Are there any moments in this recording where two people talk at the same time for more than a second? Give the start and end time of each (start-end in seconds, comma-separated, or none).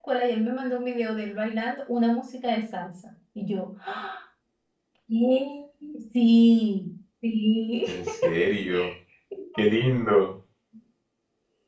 none